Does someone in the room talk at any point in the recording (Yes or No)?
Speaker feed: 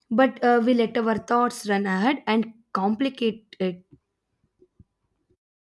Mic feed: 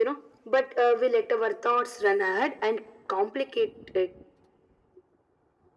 No